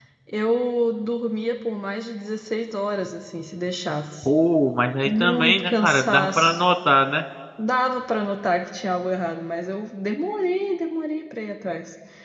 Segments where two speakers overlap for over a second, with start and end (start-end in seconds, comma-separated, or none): 5.0-6.6